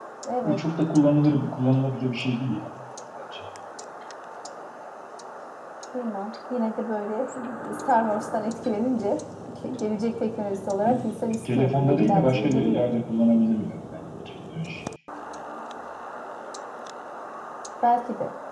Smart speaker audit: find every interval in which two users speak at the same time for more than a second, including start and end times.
11.4-12.9

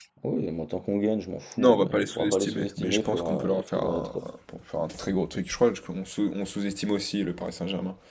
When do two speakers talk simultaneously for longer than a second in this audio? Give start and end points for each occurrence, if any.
1.6-4.2

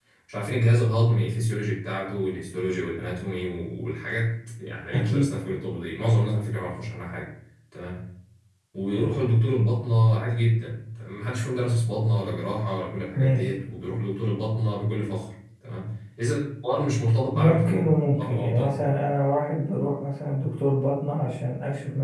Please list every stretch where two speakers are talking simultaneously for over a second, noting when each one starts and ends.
17.3-18.8

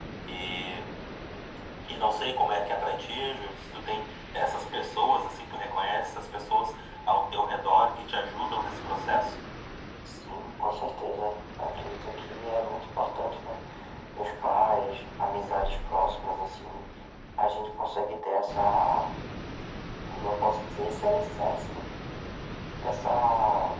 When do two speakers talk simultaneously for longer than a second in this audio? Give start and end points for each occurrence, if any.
none

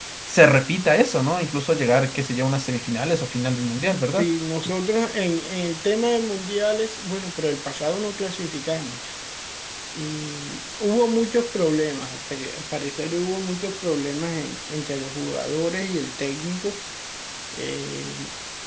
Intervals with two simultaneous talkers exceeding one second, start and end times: none

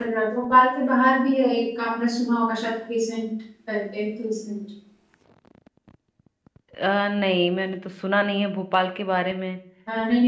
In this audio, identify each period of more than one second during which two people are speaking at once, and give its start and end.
none

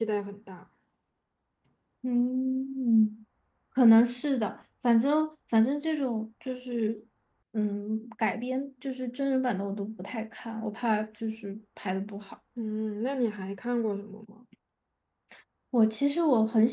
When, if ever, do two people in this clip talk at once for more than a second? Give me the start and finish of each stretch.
none

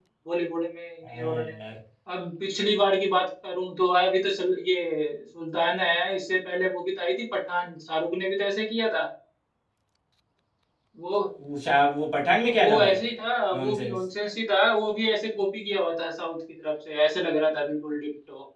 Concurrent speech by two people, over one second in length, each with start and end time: none

